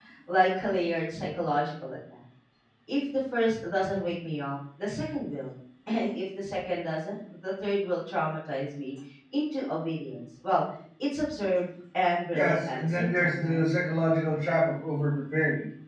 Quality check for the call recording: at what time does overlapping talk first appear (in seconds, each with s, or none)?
12.3 s